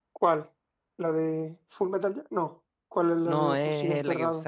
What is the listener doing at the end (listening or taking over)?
taking over